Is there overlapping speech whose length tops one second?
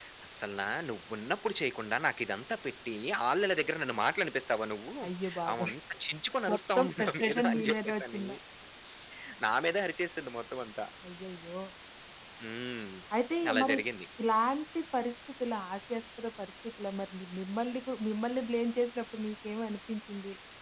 Yes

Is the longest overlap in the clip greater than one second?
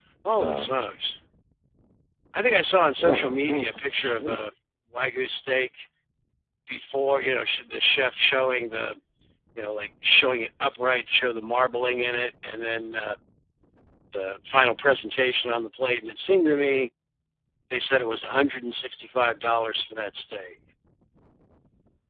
Yes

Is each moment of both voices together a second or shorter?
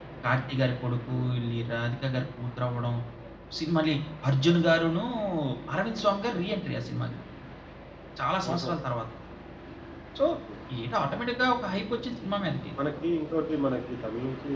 Yes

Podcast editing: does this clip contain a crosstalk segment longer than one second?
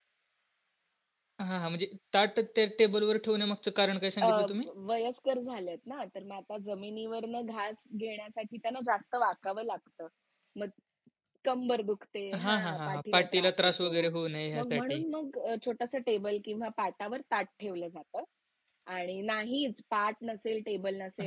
Yes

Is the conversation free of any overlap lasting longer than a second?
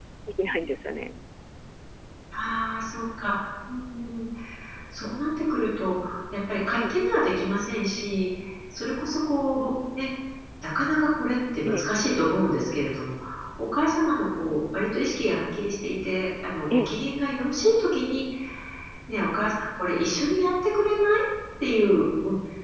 Yes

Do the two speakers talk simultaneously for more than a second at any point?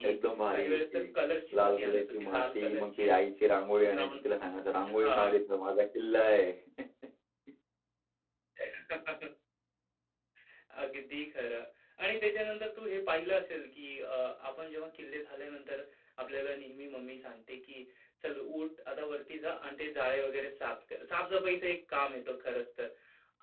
Yes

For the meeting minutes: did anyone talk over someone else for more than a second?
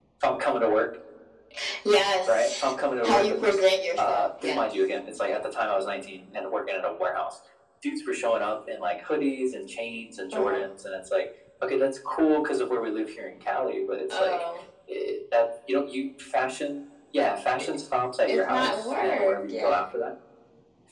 Yes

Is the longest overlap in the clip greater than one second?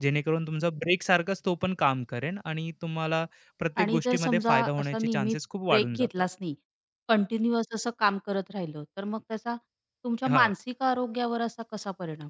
Yes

